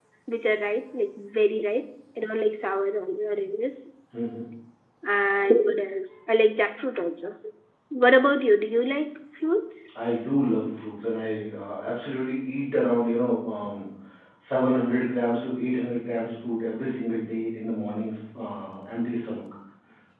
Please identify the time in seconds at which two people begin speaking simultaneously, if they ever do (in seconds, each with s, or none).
none